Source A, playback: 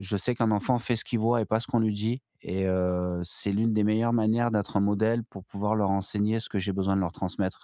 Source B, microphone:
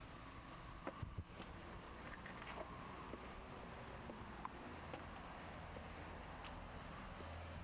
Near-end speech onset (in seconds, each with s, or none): none